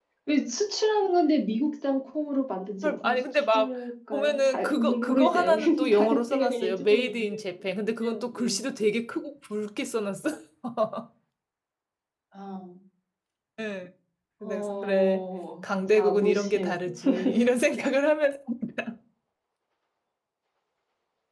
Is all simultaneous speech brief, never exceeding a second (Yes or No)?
No